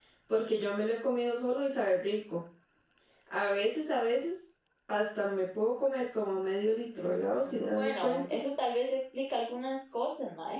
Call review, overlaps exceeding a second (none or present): present